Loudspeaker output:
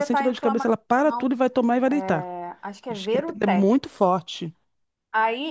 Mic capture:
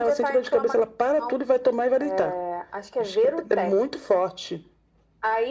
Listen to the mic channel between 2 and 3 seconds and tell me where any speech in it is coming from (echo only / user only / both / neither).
echo only